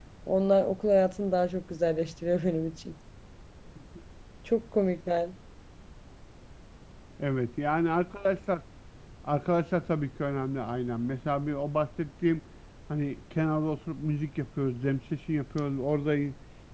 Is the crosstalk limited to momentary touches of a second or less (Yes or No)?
Yes